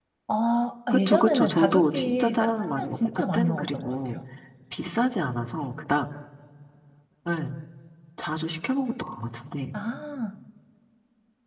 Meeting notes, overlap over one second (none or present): present